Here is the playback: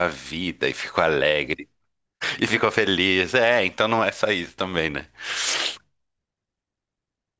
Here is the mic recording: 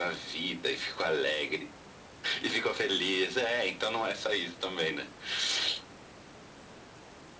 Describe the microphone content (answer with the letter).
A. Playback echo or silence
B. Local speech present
A